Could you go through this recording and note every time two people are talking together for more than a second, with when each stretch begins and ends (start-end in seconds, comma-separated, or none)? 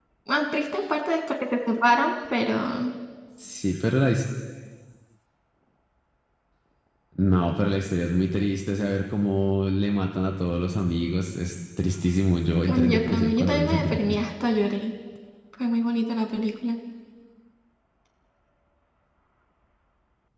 12.7-14.2